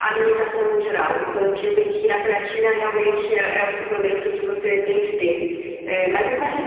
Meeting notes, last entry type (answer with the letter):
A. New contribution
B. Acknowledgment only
B